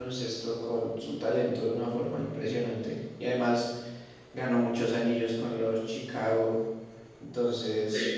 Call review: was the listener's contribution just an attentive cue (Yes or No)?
Yes